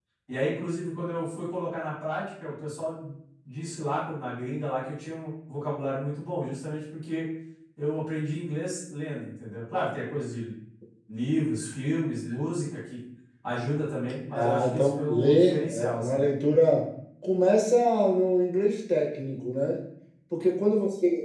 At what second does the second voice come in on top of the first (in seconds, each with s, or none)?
14.3 s